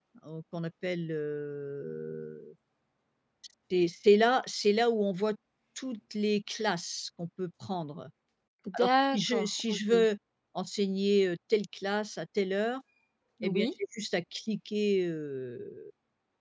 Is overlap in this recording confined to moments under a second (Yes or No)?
No